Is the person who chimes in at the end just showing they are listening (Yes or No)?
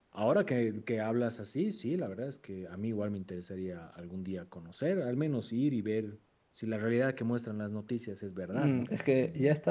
No